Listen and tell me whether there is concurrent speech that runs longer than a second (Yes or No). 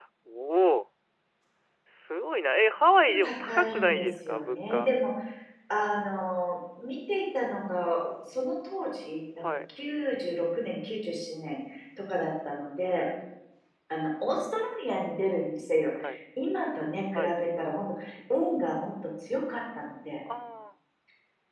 Yes